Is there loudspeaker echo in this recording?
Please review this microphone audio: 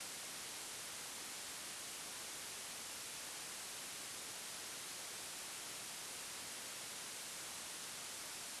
No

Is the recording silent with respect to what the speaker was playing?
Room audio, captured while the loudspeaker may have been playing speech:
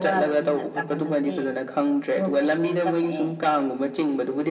No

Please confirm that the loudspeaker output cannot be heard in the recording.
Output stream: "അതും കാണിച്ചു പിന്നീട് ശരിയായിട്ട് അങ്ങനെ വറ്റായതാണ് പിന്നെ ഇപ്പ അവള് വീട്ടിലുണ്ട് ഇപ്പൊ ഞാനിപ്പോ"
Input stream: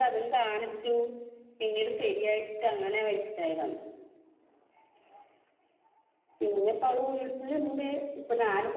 No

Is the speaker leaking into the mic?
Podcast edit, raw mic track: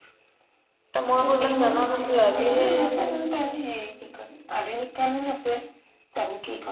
Yes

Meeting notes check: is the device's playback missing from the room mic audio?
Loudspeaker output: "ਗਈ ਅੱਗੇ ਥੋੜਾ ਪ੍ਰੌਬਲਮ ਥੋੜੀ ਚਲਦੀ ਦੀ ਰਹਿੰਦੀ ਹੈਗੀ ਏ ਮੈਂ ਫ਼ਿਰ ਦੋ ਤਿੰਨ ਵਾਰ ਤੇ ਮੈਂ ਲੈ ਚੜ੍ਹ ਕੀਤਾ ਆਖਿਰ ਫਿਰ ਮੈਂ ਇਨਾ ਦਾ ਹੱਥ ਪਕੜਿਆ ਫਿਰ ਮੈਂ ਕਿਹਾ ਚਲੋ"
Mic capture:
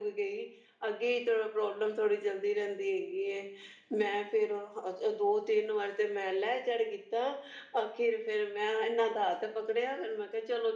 No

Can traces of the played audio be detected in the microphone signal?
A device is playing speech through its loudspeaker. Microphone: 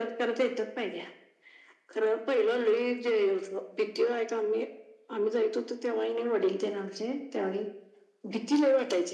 Yes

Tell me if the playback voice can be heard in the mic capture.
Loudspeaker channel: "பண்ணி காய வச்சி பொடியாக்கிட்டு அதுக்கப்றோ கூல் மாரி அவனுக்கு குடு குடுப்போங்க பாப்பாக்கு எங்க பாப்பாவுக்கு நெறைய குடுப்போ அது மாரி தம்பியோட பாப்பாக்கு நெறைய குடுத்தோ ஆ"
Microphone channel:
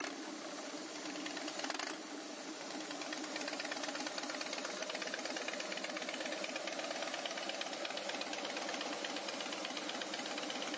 No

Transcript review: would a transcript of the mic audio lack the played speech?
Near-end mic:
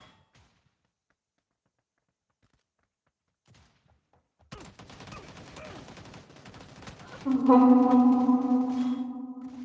Yes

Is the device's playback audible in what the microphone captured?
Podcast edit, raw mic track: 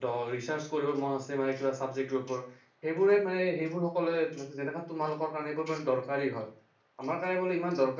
No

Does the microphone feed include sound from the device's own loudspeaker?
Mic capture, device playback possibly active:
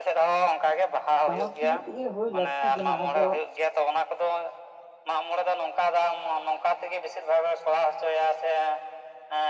Yes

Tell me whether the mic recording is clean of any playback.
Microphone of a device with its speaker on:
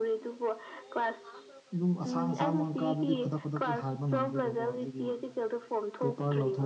No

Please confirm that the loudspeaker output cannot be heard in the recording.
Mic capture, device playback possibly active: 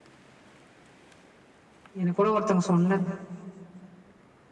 Yes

